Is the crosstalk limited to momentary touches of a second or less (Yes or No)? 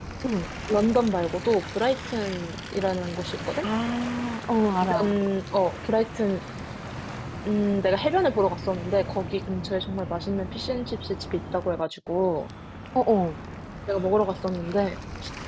Yes